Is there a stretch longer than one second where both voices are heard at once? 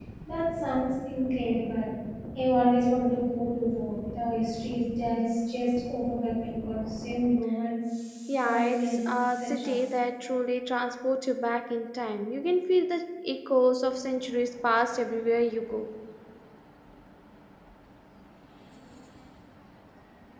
Yes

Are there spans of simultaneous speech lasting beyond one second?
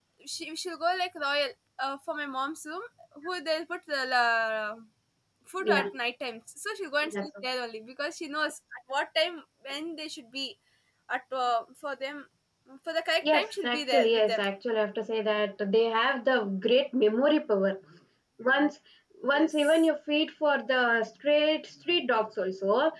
Yes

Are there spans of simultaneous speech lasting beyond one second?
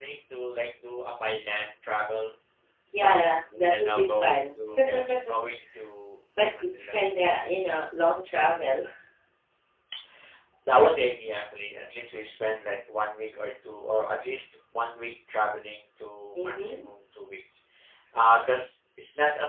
Yes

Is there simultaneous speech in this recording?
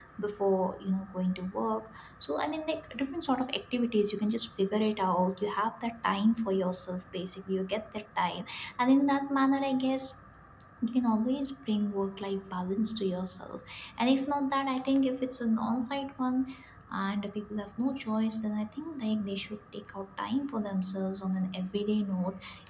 No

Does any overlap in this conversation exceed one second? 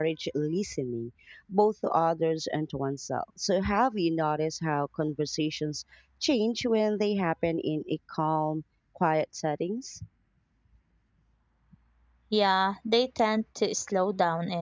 No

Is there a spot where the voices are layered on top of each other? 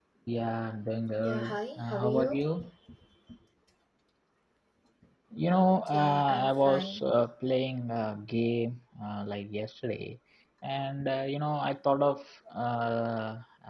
Yes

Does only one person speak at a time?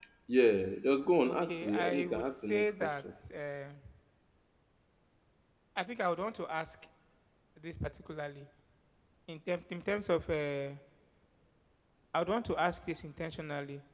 No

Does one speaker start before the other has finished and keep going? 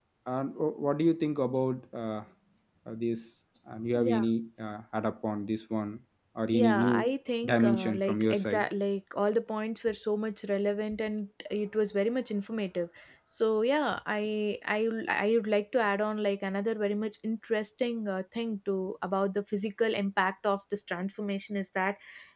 Yes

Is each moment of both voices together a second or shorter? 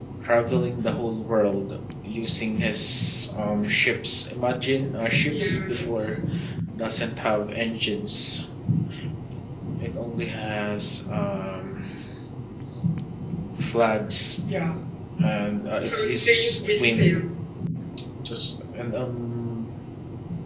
No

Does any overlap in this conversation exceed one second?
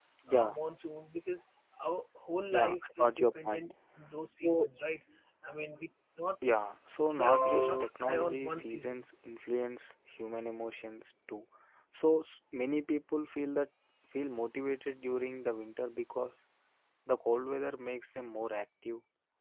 Yes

